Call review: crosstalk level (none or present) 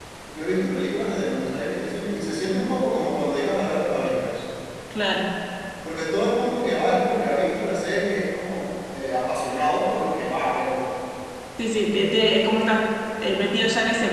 none